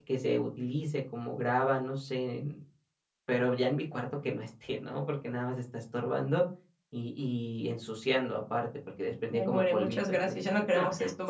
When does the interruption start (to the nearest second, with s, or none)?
9 s